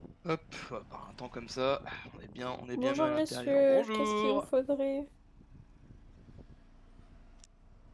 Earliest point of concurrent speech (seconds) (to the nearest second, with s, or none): 3 s